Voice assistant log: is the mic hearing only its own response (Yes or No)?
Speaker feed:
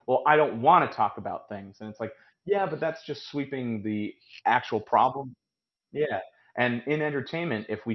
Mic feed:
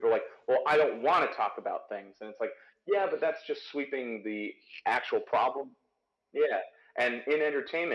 Yes